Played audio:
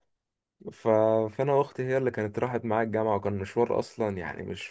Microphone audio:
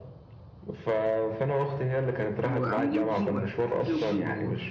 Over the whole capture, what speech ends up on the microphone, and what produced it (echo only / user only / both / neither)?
both